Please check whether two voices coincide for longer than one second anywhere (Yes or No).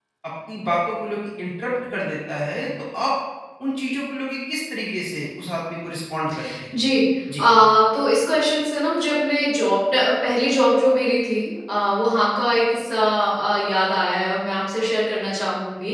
No